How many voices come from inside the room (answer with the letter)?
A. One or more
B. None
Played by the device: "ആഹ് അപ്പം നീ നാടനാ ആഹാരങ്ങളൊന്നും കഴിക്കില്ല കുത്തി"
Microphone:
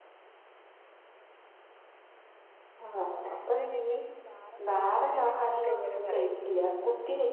A